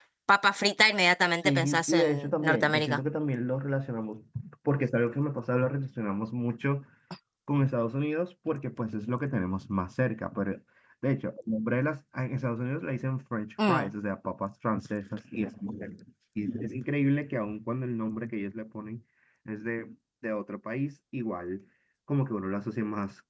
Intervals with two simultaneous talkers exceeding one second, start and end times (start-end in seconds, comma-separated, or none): 1.4-3.0